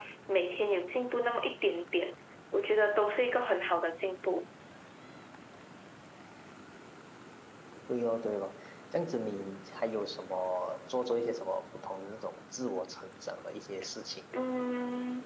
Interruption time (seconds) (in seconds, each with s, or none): none